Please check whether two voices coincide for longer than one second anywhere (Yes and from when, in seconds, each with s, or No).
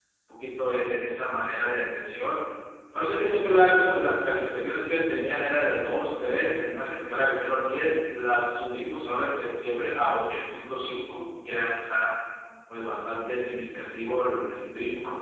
No